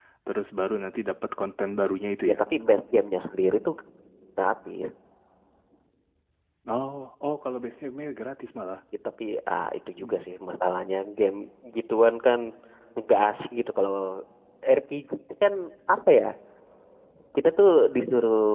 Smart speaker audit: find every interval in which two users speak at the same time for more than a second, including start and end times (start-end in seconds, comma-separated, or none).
none